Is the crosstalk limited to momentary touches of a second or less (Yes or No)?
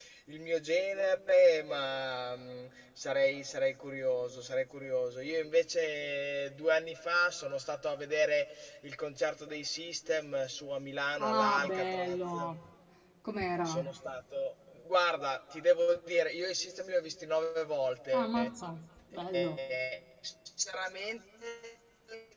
No